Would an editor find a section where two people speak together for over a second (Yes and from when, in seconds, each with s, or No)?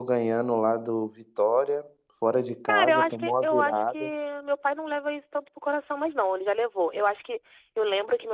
Yes, from 2.7 s